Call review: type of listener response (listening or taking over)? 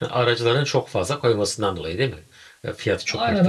taking over